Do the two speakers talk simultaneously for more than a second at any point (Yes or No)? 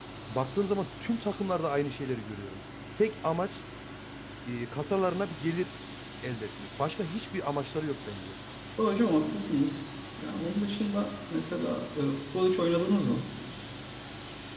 No